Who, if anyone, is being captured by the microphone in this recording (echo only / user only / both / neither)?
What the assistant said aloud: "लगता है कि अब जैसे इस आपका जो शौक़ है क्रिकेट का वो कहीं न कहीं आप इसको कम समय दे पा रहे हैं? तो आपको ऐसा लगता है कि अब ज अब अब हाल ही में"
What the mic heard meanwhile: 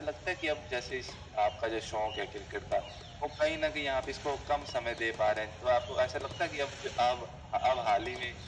echo only